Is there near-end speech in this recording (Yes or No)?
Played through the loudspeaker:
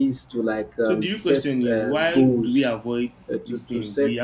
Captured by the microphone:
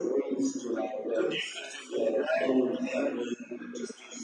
No